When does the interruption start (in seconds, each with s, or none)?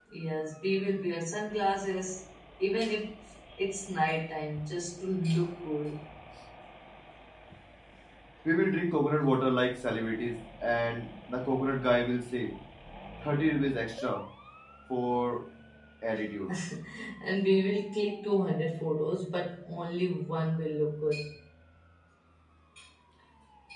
none